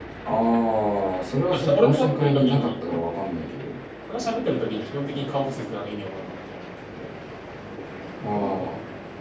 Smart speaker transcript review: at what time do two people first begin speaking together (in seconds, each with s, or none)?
1.5 s